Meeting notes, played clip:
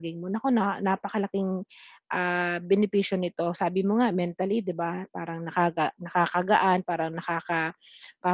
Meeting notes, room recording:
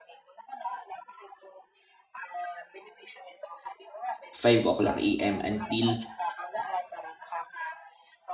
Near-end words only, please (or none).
5:00 AM until,